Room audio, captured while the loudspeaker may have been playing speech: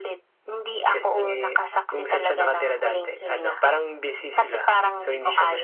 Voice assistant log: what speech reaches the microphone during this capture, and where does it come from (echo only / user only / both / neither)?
echo only